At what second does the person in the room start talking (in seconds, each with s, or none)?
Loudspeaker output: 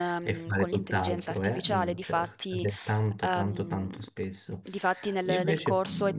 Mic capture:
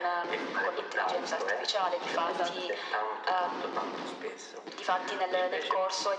2.2 s